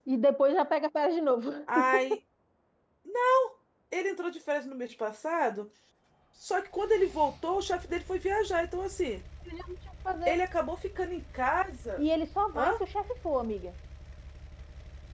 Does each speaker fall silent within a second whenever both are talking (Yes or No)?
Yes